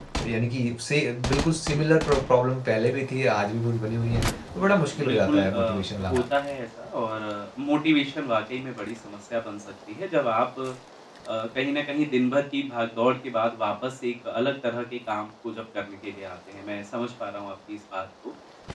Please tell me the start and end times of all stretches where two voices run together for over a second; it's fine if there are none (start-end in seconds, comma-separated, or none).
4.6-6.2